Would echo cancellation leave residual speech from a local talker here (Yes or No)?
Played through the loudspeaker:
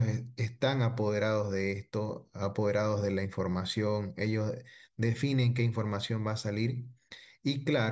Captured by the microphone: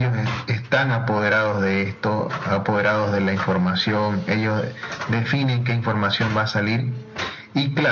No